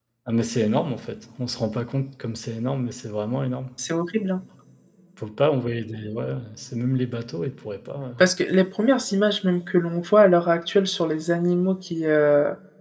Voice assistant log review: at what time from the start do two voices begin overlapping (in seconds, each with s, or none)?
none